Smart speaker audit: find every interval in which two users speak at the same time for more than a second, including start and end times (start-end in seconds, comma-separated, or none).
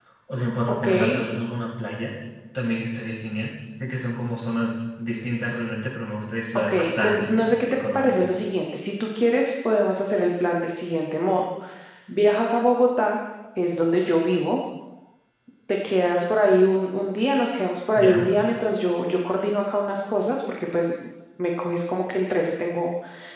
6.5-8.2